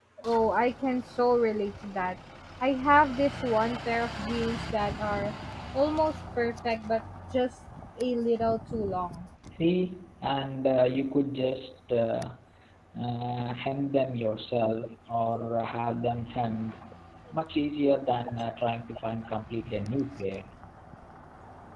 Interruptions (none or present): none